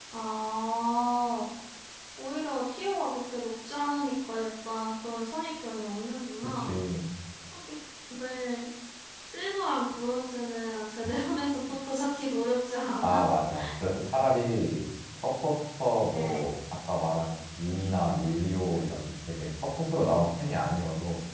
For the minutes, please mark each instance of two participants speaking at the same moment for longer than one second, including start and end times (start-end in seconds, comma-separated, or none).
none